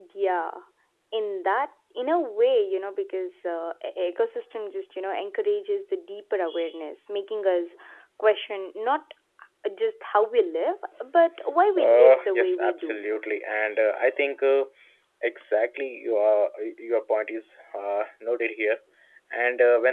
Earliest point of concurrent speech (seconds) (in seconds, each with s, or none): 11.8 s